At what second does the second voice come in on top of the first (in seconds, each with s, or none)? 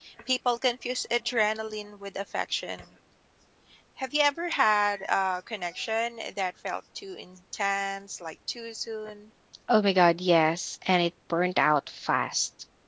none